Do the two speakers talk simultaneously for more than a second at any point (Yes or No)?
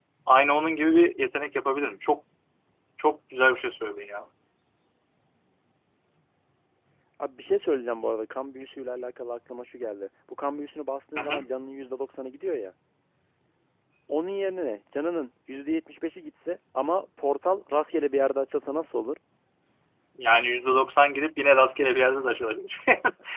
No